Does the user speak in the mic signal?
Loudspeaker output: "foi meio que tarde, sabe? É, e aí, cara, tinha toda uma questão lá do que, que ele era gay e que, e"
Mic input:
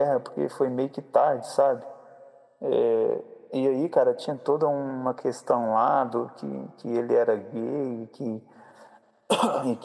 No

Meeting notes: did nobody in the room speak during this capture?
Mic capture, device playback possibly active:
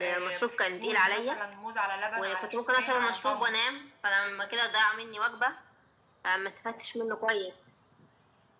Yes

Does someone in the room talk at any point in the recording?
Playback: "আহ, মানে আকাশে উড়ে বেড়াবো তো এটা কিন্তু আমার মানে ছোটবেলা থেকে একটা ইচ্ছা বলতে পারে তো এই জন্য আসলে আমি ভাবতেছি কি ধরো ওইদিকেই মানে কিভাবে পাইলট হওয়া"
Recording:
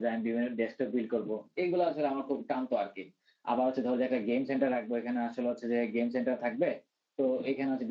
Yes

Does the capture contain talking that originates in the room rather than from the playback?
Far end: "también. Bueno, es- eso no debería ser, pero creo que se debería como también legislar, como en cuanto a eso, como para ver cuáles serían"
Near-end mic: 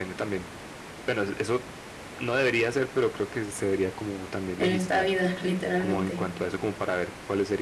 Yes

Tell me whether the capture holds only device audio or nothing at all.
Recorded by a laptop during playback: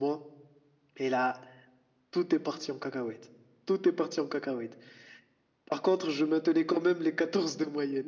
Yes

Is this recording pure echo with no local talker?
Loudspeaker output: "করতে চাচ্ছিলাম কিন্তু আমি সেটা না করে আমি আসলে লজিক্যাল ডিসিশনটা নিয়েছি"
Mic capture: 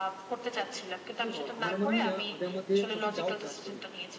No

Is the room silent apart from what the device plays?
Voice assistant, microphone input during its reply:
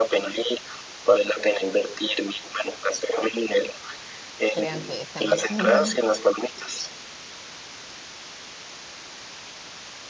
No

